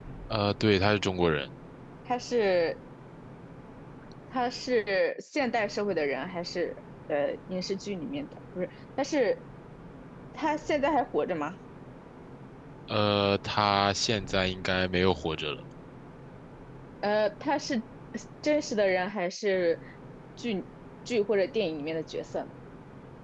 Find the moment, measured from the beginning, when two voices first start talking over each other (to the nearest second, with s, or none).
none